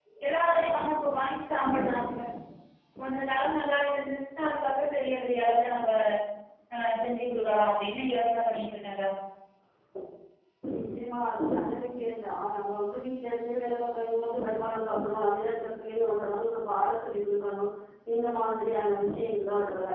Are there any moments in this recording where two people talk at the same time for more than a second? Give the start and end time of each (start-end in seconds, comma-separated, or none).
none